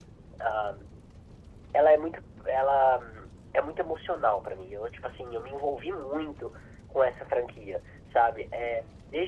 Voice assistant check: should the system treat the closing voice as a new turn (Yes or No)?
No